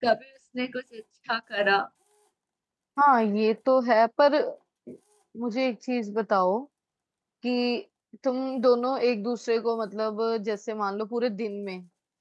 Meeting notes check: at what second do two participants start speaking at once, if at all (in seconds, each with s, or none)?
none